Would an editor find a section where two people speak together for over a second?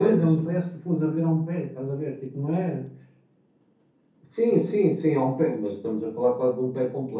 No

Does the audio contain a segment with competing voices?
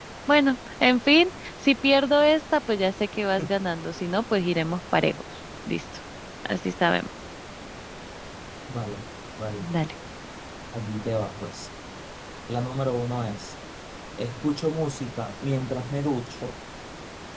No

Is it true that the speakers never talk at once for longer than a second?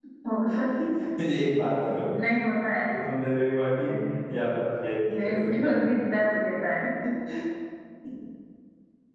Yes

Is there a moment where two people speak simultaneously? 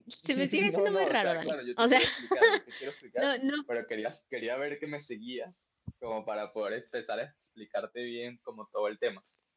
Yes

